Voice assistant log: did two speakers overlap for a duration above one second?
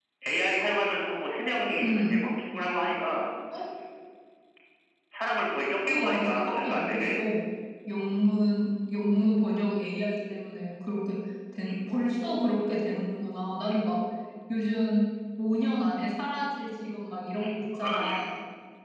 Yes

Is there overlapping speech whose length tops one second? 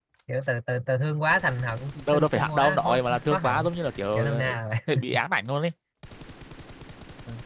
Yes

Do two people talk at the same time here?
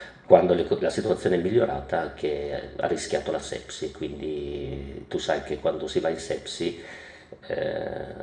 No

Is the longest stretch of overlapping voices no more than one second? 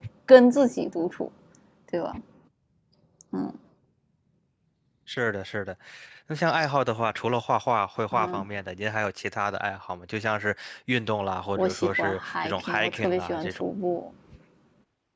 No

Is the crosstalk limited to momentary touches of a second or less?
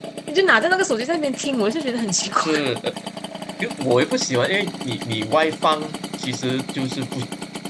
Yes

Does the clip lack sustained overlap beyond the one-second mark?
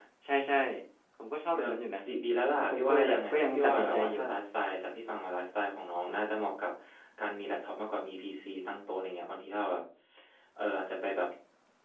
No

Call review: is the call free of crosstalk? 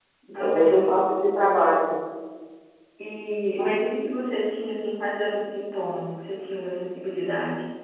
No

